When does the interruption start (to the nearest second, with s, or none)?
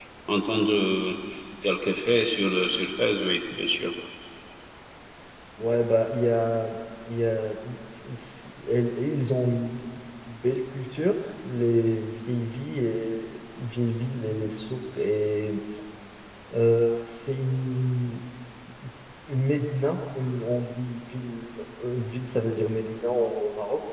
none